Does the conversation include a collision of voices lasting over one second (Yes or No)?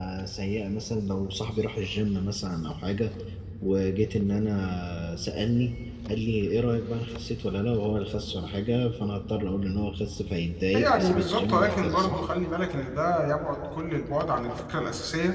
Yes